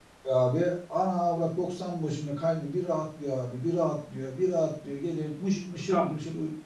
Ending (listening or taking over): taking over